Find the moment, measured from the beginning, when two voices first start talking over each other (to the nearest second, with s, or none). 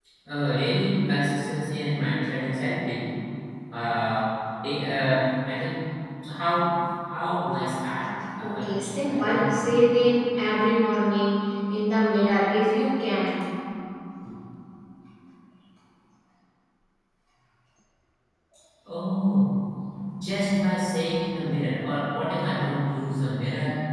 8 s